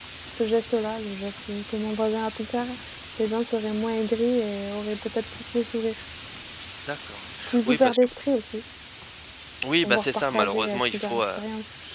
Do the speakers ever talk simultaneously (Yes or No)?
Yes